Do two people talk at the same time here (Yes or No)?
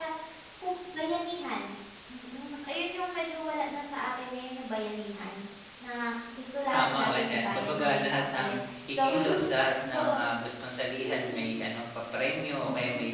Yes